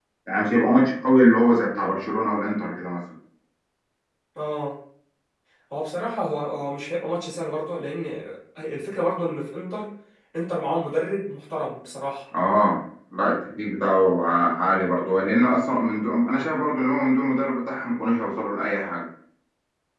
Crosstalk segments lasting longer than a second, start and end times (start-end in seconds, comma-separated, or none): none